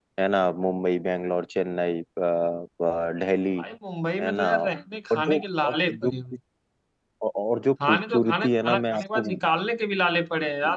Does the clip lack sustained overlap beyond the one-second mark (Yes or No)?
No